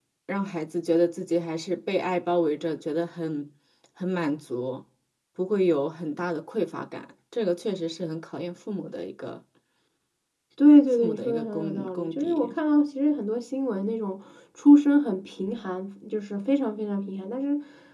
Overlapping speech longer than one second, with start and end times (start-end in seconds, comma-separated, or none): 10.9-12.5